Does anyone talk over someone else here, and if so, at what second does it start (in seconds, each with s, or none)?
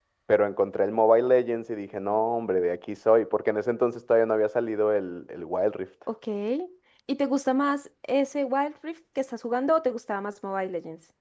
none